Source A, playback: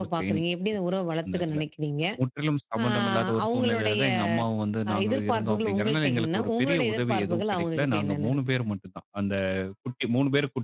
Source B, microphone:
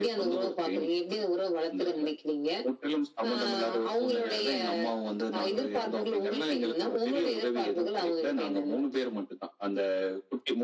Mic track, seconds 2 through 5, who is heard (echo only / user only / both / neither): echo only